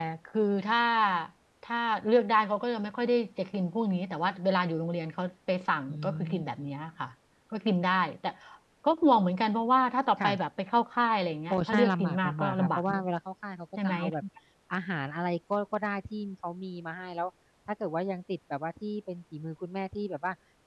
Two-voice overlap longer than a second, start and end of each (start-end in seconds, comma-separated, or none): 11.5-13.0